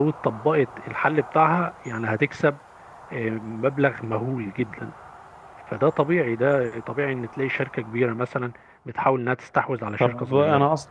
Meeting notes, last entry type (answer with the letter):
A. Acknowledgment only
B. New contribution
B